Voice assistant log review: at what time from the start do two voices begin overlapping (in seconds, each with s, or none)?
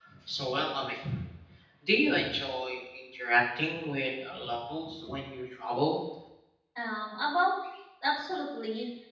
none